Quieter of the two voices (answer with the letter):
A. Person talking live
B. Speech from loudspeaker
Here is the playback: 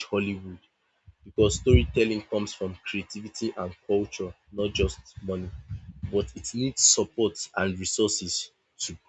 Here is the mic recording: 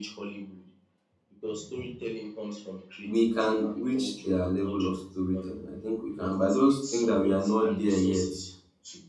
B